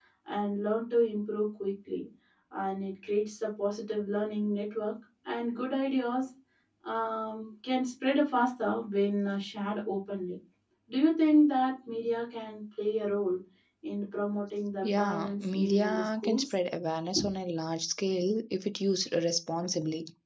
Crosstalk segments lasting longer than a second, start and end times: 14.8-16.5

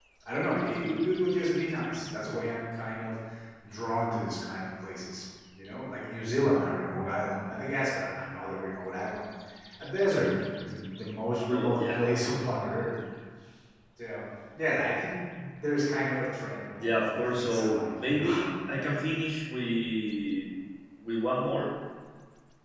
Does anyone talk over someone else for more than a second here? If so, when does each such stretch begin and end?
16.8-18.5

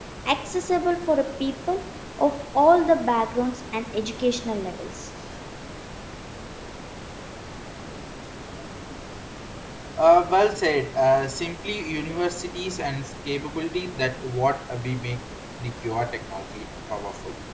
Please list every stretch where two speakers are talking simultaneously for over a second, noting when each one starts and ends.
none

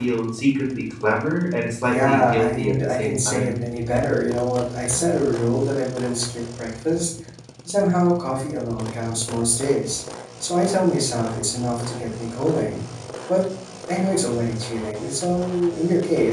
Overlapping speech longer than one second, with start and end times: 1.8-3.7

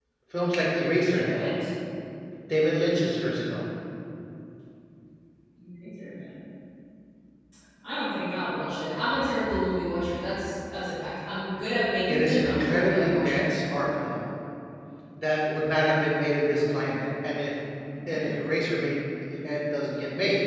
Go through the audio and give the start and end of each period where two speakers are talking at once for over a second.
12.1-13.6

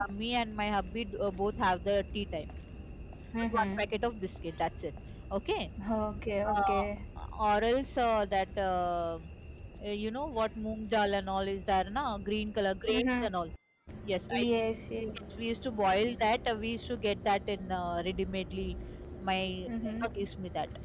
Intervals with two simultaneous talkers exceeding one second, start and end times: none

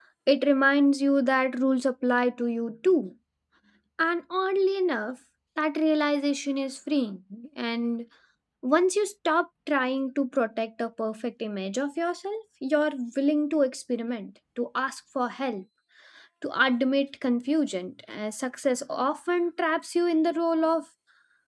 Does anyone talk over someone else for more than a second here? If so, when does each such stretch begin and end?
none

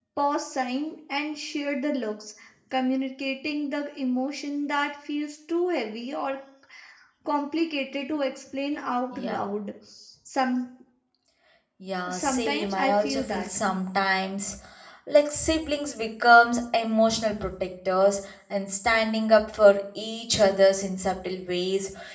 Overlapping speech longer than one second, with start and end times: 12.1-13.5

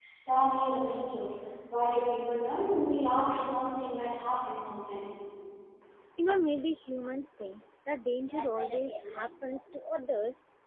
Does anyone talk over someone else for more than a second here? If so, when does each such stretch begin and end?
none

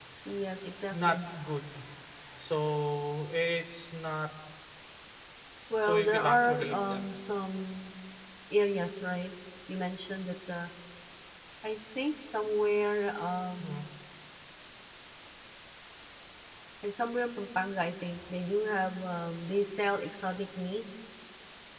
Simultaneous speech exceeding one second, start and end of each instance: 5.8-7.1

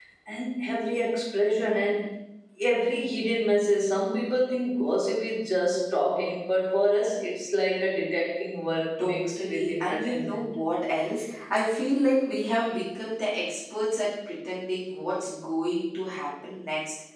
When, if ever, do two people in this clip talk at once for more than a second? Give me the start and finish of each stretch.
9.0-10.4

